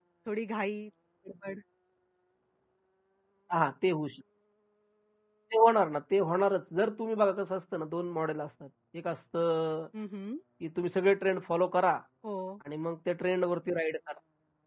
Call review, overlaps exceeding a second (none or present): none